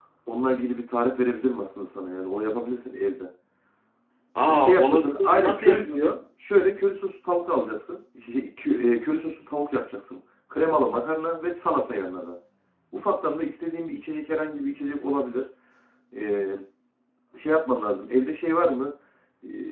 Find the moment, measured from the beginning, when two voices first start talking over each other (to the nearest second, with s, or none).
4 s